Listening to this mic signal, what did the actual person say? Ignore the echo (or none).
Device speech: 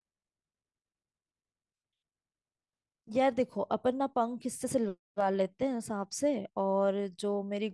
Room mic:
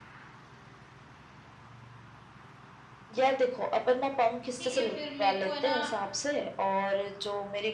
ठीक है फिर मेरे को है ना